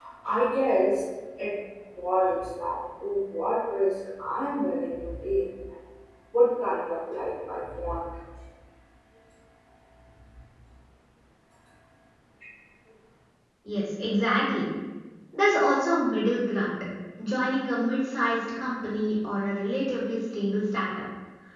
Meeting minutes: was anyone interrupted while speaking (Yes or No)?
No